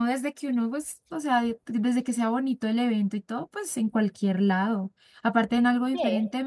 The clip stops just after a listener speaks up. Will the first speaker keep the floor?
Yes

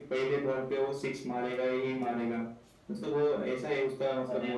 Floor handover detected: No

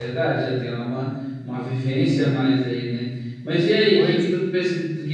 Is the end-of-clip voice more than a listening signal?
No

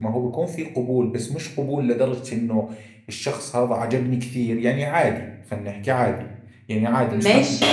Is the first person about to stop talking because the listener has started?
No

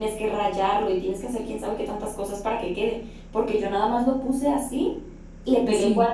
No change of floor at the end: Yes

